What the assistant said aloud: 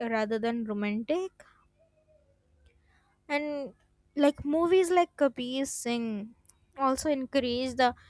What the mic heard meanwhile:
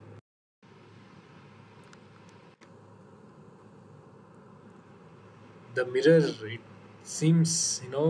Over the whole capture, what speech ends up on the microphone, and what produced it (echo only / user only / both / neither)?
user only